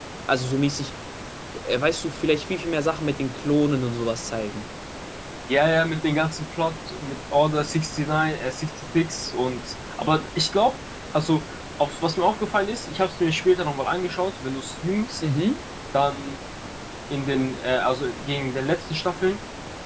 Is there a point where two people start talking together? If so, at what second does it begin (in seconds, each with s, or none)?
none